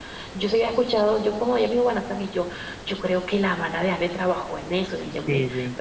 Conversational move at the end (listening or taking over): listening